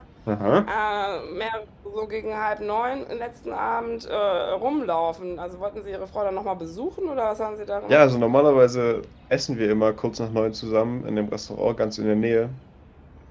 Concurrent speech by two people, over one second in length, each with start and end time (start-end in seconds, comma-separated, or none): none